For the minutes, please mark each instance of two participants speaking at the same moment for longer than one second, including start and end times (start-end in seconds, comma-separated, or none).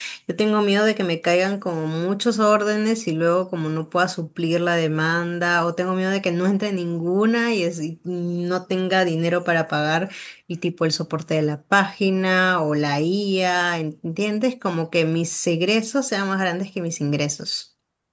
none